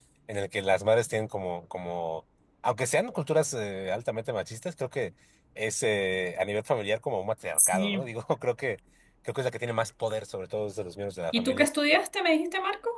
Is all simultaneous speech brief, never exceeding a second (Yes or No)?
Yes